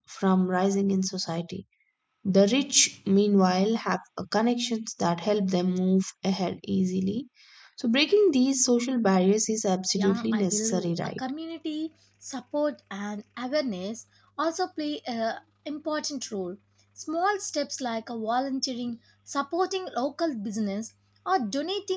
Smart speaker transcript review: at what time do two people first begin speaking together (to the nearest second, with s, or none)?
10 s